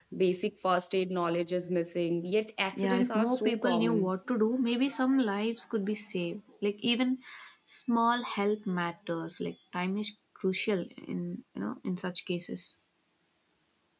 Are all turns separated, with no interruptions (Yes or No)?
No